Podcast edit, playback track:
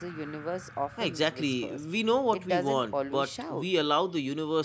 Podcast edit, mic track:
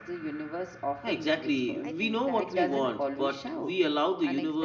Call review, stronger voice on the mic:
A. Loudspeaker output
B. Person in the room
A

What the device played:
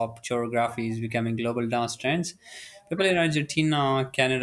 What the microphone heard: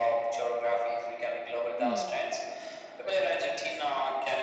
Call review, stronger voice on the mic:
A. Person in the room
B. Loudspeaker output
B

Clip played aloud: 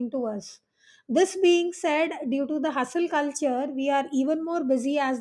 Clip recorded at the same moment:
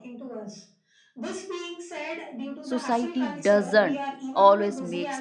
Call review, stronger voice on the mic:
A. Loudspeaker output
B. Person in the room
B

